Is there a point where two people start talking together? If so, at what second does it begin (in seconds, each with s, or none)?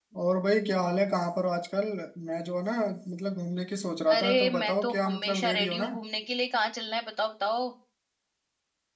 4.1 s